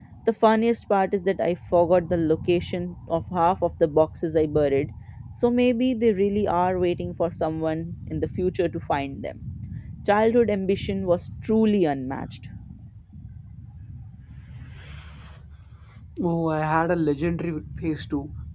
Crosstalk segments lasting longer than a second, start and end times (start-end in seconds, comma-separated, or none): none